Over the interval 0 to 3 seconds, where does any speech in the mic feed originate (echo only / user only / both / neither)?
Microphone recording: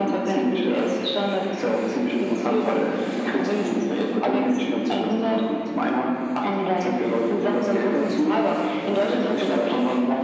echo only